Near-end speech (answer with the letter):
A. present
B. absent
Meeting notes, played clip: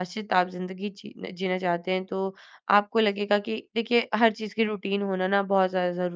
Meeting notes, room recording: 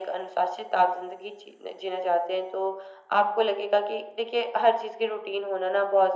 B